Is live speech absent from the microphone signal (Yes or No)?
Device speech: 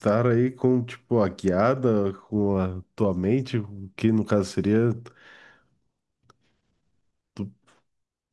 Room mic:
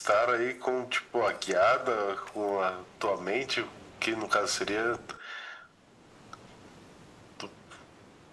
Yes